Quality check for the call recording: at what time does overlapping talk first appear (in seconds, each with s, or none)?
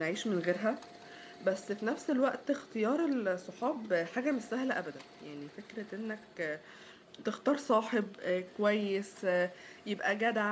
none